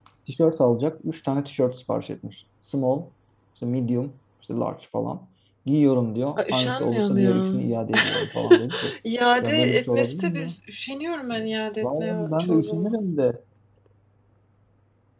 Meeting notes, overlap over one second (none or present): present